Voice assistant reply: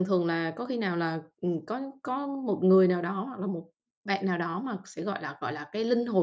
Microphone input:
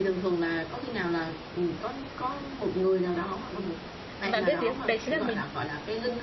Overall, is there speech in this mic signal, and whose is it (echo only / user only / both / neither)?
both